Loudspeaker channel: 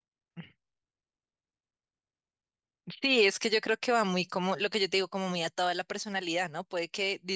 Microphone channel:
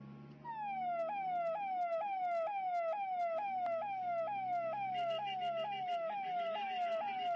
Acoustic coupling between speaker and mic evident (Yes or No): No